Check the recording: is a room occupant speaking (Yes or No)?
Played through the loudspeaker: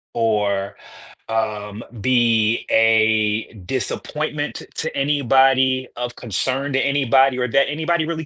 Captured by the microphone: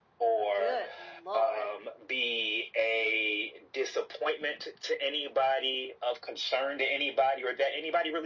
Yes